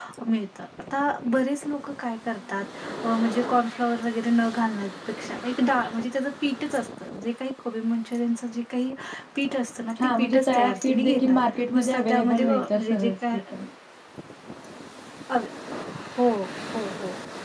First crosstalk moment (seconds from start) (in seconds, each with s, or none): 10.2 s